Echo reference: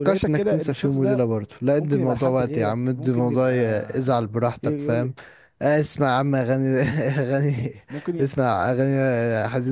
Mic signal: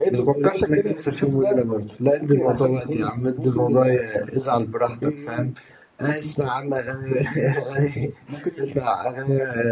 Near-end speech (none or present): none